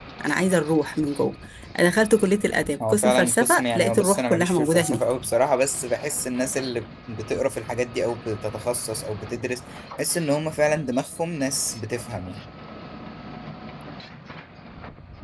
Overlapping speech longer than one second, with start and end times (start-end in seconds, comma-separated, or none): 2.9-5.0